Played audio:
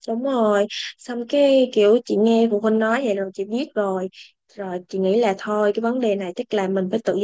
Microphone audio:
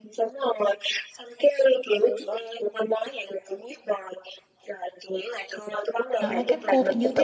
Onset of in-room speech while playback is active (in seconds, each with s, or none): 6.2 s